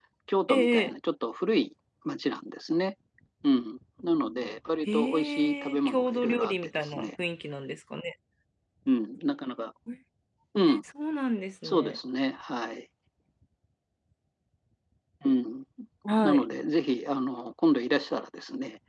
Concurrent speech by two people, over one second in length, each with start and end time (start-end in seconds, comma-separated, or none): 4.9-7.1